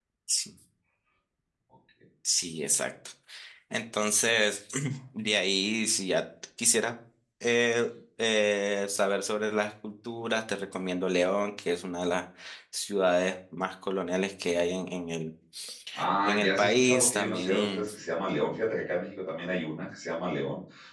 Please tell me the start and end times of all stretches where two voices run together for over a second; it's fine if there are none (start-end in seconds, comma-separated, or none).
16.2-17.9